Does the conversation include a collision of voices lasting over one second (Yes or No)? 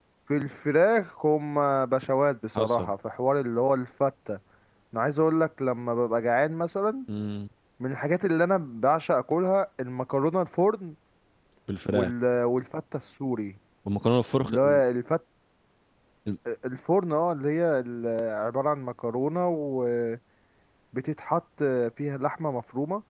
No